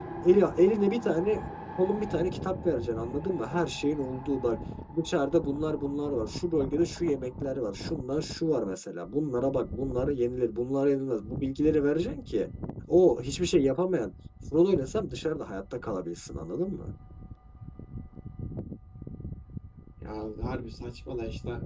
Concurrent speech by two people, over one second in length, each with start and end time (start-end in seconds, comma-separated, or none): none